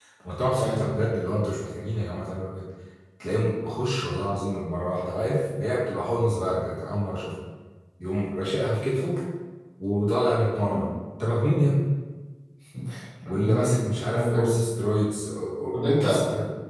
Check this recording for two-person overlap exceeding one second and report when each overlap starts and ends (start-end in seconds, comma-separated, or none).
13.3-14.8